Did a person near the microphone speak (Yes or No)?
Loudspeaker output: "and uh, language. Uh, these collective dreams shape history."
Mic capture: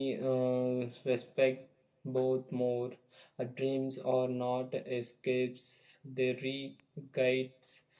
Yes